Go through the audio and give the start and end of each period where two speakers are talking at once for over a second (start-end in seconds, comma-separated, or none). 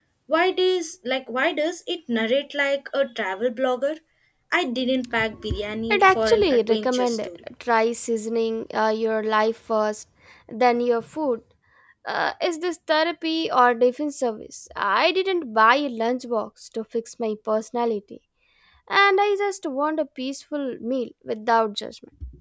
5.9-7.3